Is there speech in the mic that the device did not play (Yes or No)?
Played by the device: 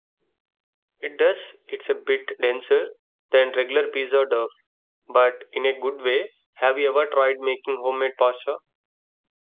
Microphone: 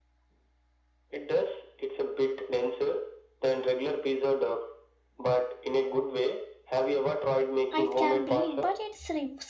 Yes